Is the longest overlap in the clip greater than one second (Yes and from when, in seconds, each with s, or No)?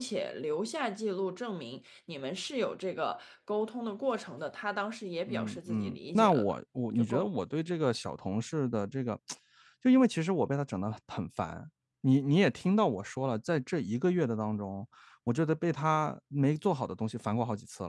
Yes, from 5.3 s